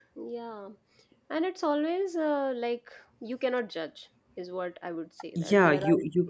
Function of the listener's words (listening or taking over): taking over